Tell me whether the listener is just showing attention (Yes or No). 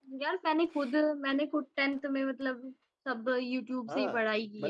No